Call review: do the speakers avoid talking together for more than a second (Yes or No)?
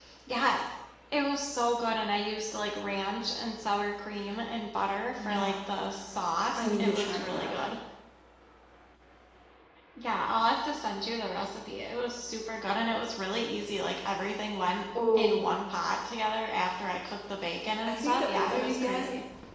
No